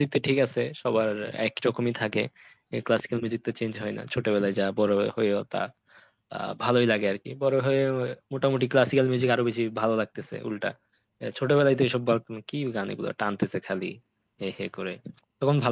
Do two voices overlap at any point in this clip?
No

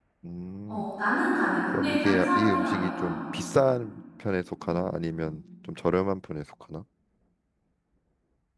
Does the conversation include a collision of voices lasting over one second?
Yes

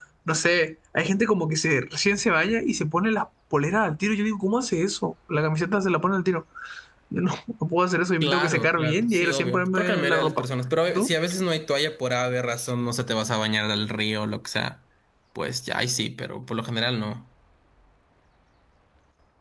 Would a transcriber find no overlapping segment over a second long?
No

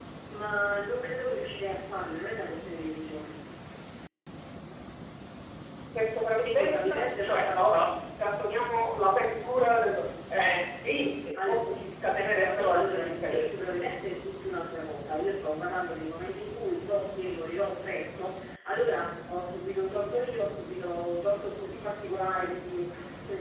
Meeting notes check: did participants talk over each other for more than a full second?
Yes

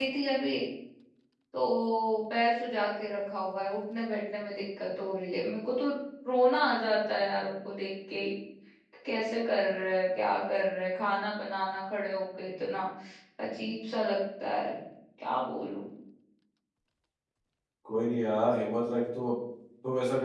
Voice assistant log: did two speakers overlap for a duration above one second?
No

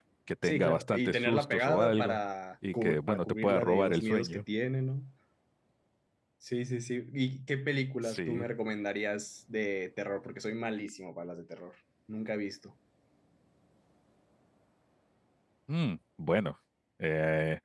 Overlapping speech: Yes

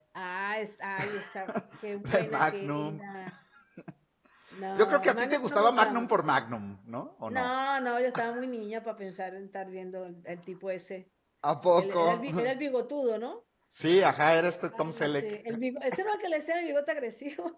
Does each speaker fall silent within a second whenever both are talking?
No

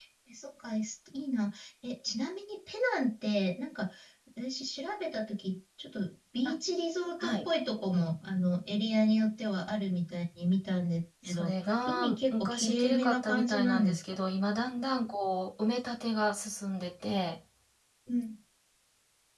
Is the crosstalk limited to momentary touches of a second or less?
No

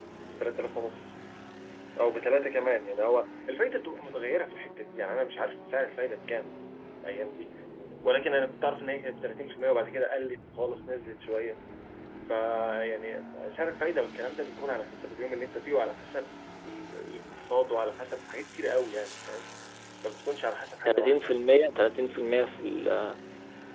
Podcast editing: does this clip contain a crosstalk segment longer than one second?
No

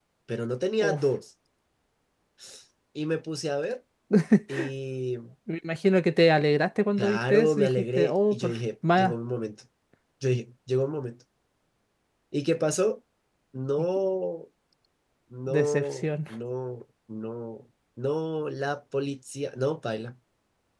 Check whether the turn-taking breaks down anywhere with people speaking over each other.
Yes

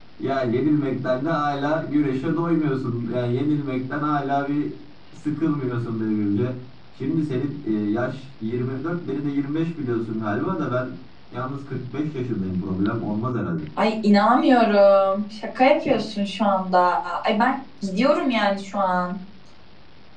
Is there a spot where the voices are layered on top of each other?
No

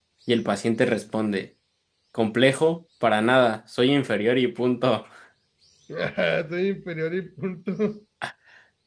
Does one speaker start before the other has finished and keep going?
No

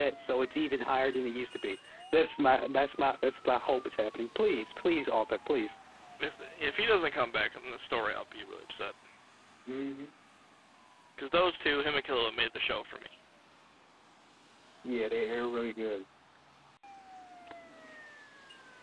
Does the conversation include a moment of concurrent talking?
No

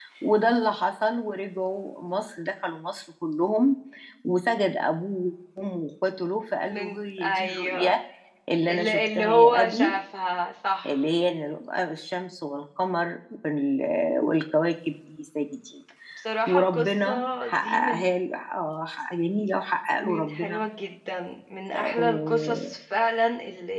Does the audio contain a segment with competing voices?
Yes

